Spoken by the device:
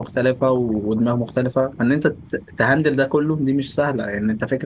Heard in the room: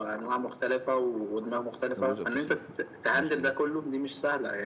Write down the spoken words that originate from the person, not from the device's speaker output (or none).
لو جزء بتصرفه مظبوط